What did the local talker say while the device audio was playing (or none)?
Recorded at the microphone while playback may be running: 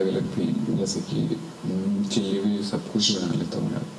अच्छा